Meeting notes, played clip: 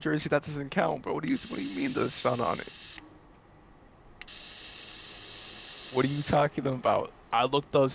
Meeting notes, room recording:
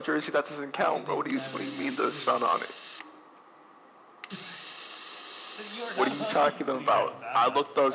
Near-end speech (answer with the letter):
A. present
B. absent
A